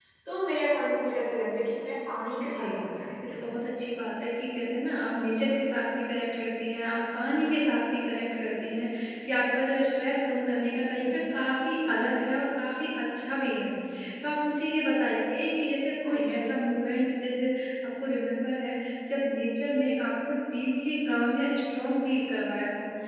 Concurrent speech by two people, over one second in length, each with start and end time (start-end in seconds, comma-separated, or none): none